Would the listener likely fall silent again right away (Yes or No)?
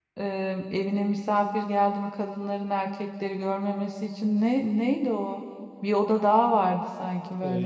No